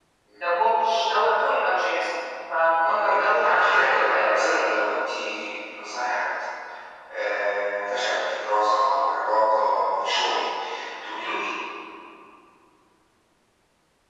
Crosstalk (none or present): present